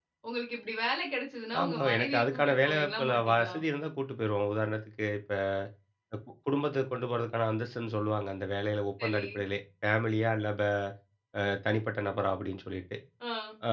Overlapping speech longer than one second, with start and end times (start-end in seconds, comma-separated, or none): 1.6-3.5